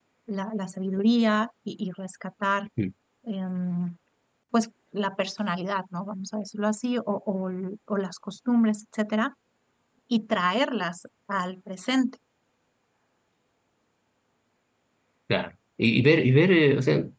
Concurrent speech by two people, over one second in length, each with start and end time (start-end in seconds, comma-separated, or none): none